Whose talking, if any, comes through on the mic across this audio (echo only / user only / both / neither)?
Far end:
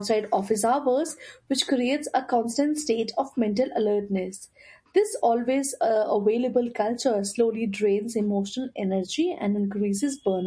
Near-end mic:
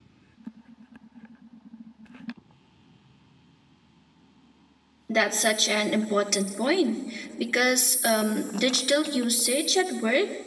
user only